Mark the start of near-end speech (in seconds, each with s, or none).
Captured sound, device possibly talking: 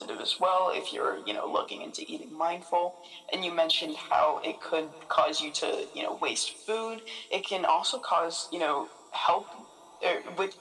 none